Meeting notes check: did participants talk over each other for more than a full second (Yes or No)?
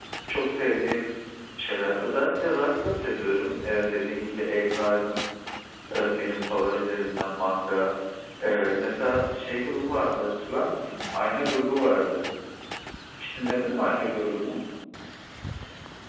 No